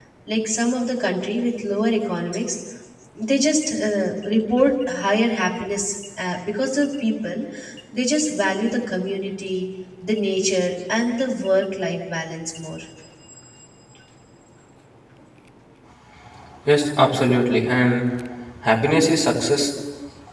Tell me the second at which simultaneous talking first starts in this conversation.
none

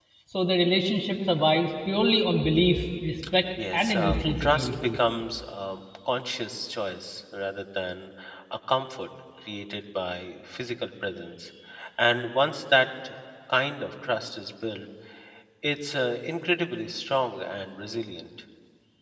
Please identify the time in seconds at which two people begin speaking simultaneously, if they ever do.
4 s

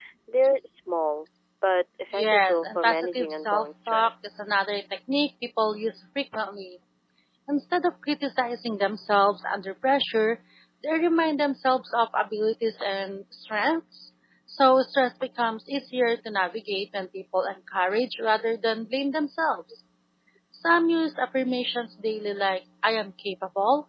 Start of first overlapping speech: 2 s

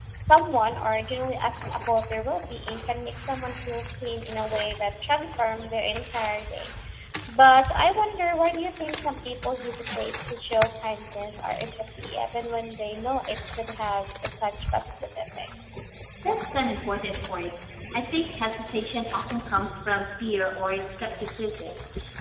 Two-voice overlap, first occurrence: none

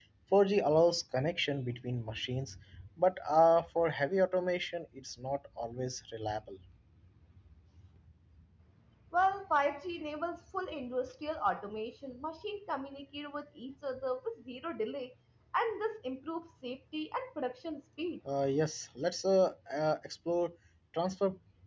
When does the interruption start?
none

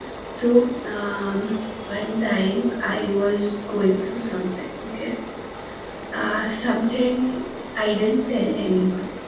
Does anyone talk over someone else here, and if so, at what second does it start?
none

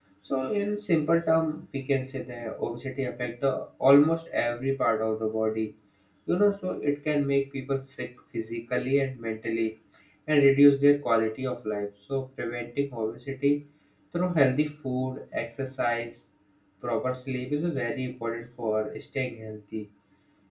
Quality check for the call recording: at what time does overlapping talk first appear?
none

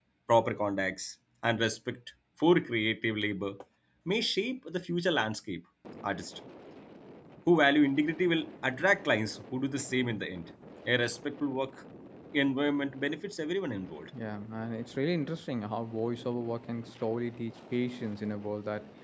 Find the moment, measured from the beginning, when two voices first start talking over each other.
none

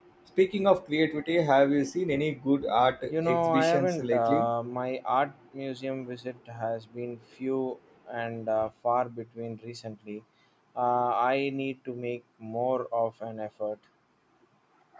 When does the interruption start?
3 s

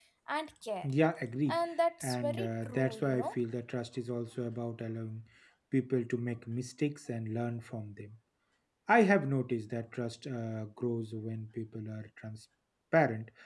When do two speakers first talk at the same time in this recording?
2 s

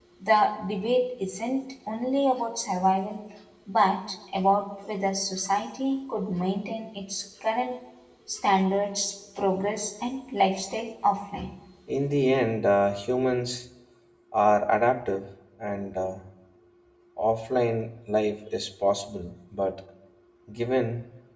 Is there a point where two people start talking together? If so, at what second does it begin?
none

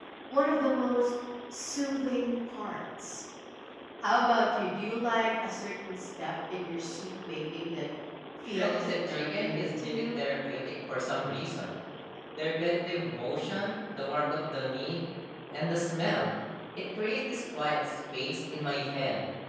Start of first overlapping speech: 8 s

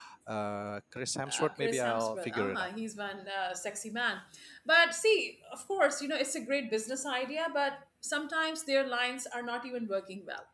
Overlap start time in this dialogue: 1 s

